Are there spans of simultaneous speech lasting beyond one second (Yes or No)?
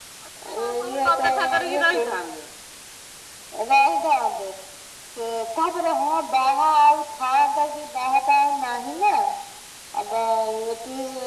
Yes